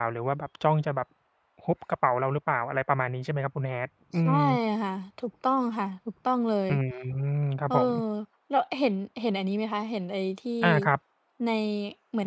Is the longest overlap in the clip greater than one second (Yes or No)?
No